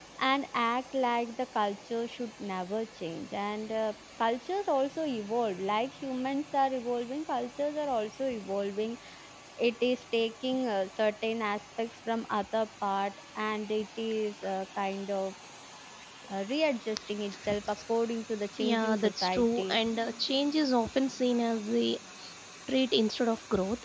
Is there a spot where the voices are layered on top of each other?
Yes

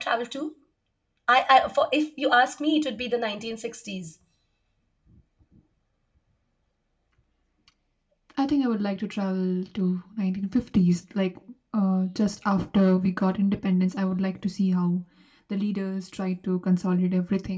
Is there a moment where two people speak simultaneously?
No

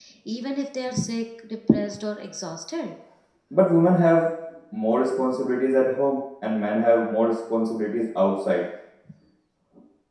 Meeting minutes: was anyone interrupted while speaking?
No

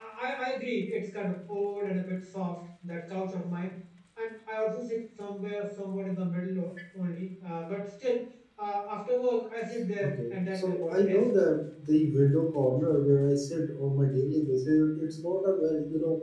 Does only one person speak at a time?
No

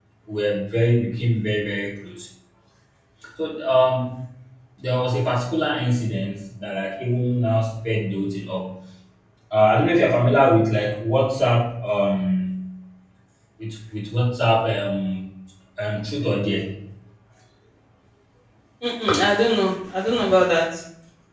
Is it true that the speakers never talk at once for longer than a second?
Yes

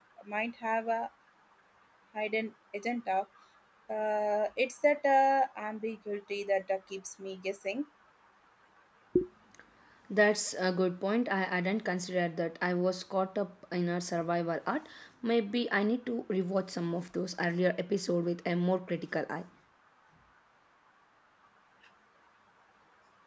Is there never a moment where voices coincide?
Yes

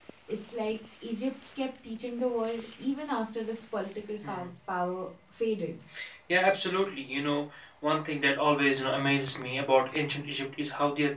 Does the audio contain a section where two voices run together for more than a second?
No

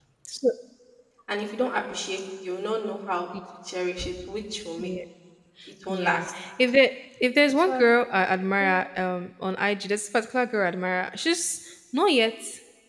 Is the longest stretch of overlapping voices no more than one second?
Yes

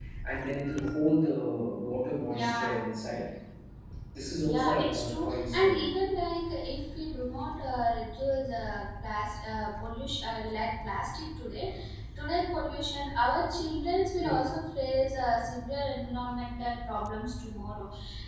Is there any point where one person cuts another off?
Yes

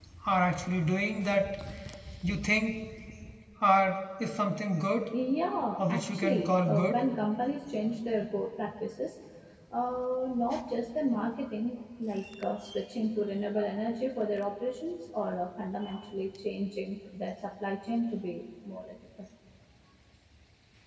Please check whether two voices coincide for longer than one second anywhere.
Yes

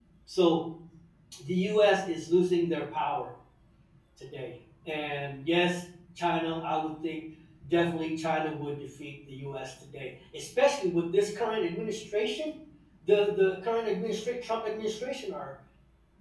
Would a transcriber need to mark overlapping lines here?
No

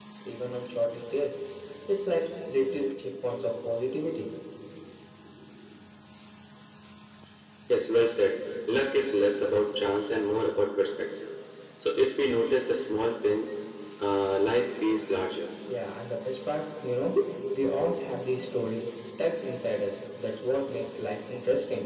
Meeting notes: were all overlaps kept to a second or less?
Yes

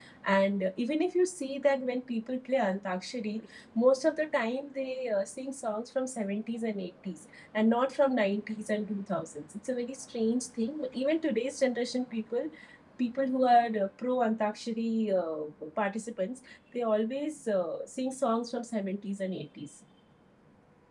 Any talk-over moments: No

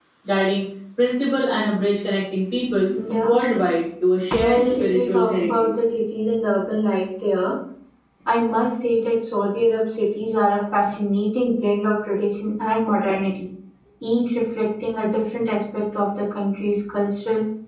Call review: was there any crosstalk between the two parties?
Yes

